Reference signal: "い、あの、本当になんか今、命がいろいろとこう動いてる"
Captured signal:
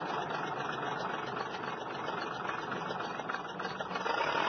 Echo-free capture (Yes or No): Yes